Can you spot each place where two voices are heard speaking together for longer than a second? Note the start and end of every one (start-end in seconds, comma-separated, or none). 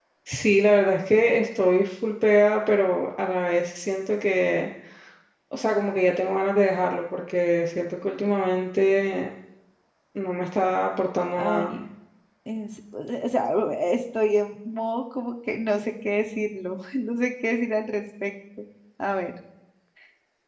none